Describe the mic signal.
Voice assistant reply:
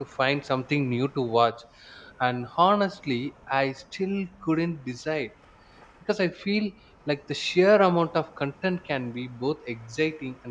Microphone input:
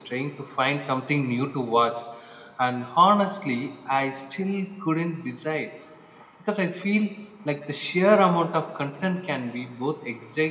echo only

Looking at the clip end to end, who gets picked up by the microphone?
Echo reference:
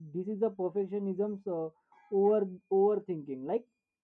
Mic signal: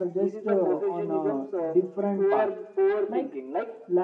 both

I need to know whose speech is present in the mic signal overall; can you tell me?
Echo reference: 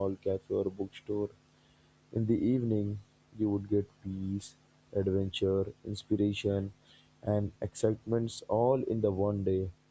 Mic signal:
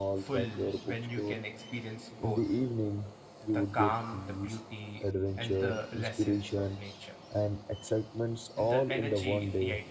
both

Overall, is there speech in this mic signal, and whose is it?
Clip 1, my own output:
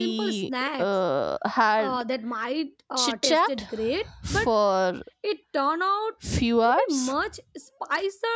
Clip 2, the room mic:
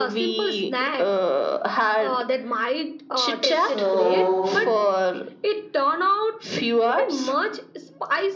both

